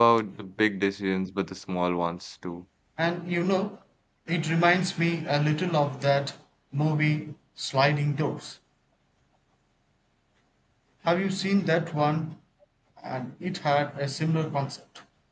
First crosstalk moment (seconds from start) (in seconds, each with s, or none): none